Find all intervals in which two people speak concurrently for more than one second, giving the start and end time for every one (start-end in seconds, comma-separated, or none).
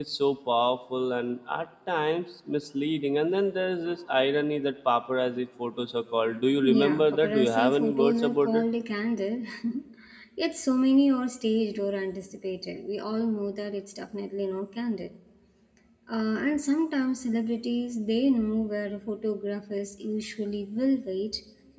6.8-8.6